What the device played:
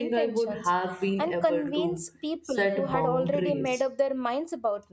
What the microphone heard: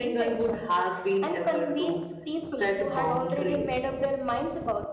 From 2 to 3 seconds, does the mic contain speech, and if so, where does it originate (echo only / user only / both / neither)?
echo only